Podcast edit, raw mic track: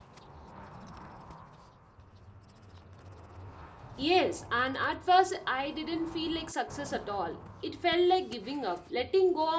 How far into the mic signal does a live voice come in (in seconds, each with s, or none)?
4.0 s